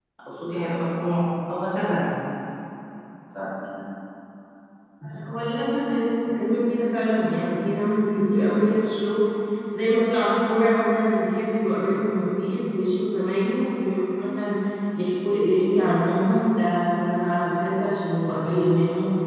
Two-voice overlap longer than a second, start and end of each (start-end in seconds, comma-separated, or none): none